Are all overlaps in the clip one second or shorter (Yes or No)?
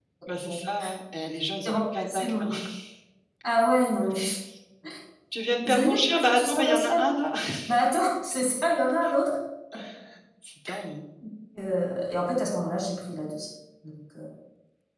No